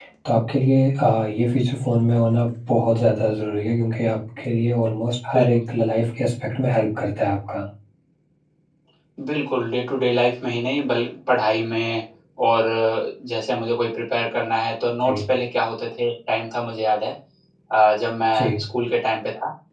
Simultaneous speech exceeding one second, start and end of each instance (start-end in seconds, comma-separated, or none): none